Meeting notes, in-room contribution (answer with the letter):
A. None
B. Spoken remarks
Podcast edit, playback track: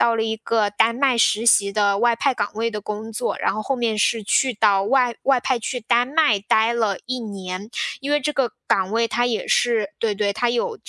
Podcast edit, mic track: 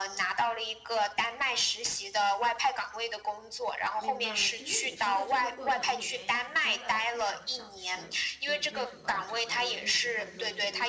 B